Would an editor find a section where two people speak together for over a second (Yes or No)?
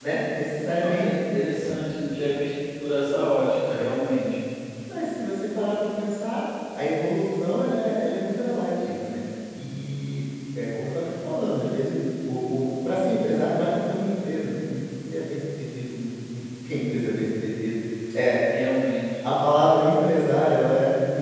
No